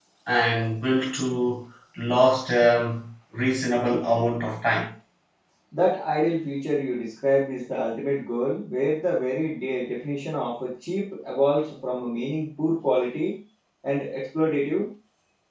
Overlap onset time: none

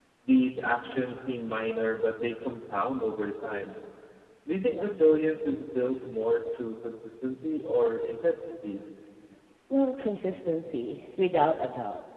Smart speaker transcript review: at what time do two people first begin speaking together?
none

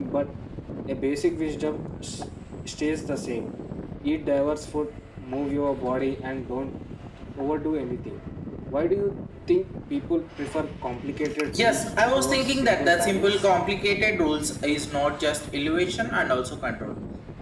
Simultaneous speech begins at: 11.5 s

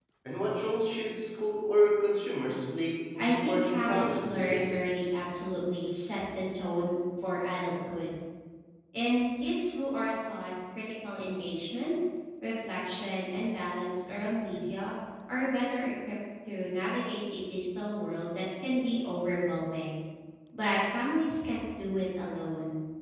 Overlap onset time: 3.2 s

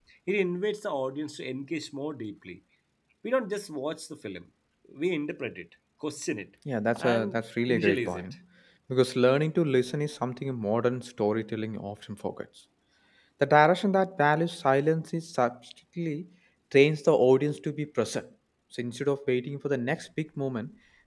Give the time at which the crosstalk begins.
7.0 s

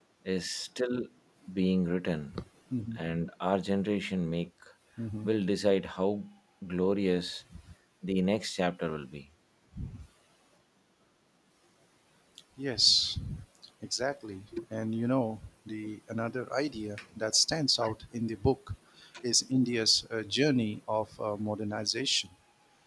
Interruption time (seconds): none

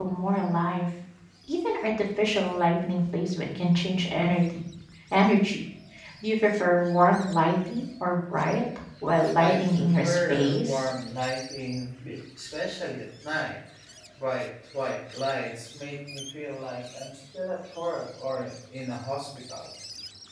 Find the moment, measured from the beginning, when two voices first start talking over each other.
9.4 s

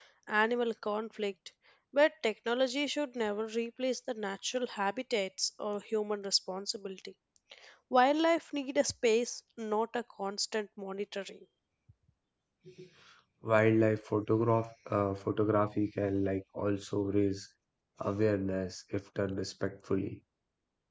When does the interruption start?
none

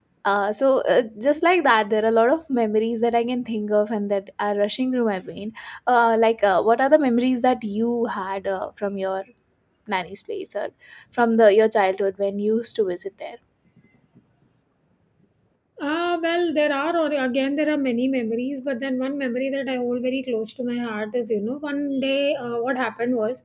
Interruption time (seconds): none

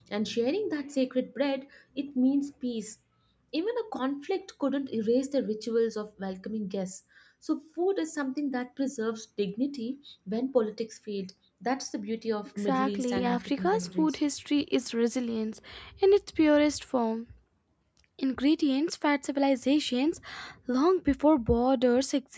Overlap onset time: 12.7 s

